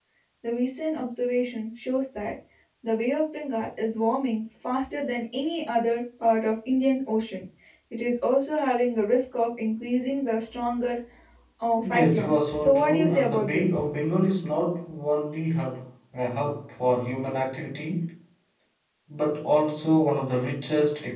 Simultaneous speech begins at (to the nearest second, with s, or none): 12 s